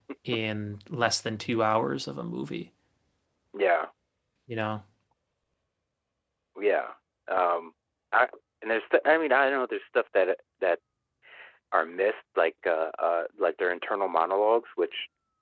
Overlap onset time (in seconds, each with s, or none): none